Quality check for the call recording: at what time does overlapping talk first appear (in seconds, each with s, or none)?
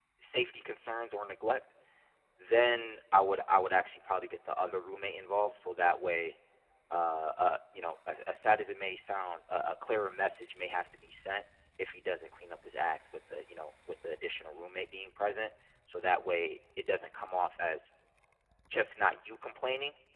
none